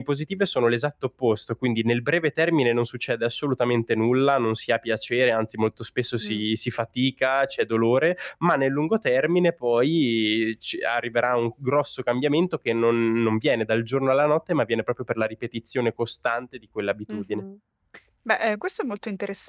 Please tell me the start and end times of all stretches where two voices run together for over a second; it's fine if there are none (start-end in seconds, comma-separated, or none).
none